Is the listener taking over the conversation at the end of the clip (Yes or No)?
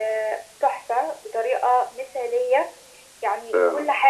No